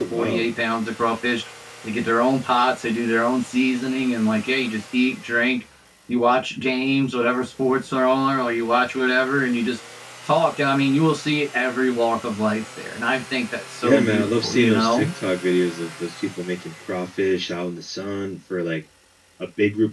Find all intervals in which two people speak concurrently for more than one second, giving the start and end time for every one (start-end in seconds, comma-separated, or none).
13.8-15.1